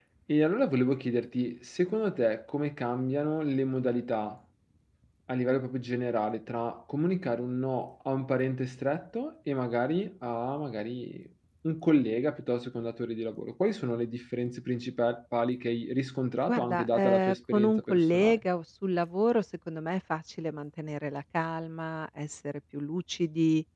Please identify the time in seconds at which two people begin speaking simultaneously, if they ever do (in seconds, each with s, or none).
16.5 s